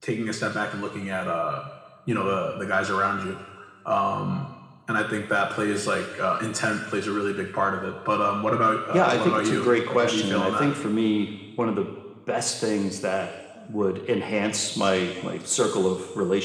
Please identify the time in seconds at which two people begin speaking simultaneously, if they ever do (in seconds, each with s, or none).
8.9 s